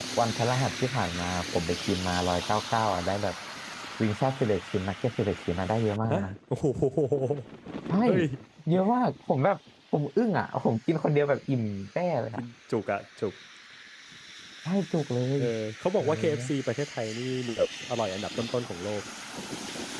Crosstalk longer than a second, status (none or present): none